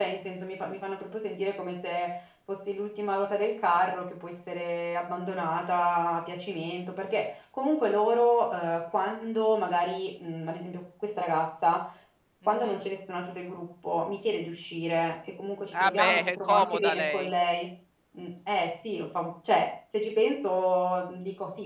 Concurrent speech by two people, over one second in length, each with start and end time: 15.7-17.3

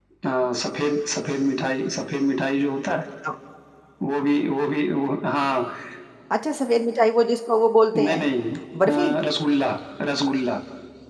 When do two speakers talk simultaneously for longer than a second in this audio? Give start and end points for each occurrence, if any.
none

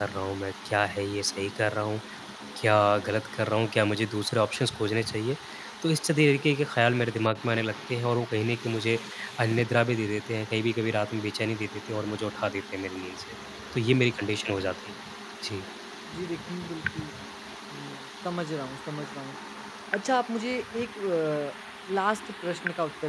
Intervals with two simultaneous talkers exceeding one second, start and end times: none

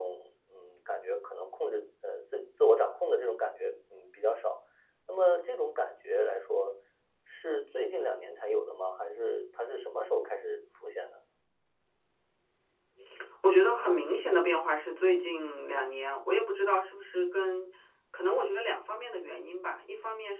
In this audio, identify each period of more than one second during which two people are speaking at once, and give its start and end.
none

